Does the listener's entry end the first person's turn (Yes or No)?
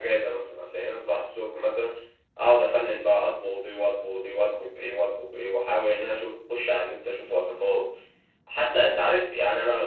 No